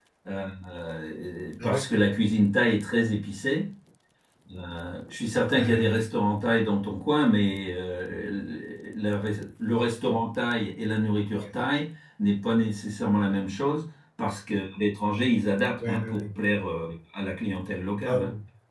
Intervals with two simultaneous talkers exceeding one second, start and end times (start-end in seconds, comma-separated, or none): none